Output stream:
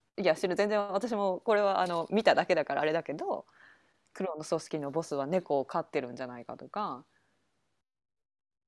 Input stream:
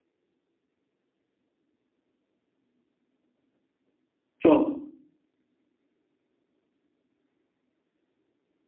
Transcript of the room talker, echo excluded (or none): そう。